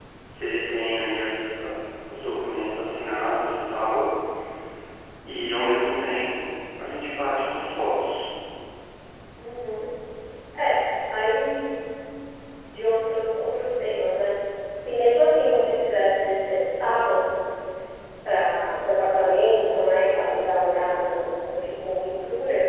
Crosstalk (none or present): none